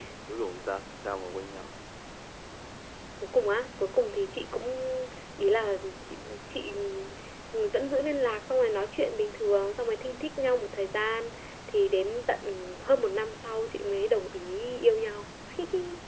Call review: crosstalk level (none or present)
none